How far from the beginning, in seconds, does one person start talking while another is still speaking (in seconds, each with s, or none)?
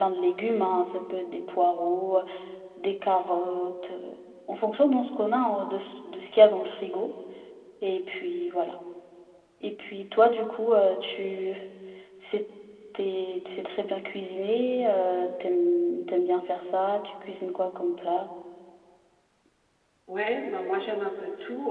none